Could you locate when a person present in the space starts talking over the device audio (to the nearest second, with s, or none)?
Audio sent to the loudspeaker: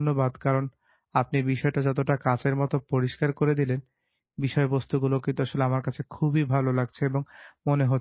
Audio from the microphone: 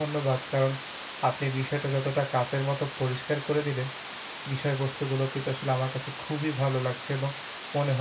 none